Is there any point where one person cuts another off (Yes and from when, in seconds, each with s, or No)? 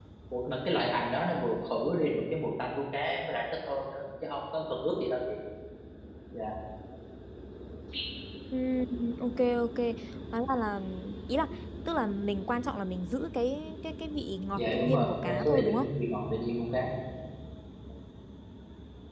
Yes, from 14.6 s